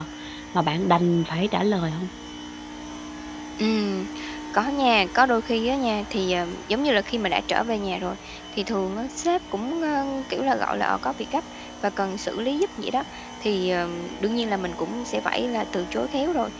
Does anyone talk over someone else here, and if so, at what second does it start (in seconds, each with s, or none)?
none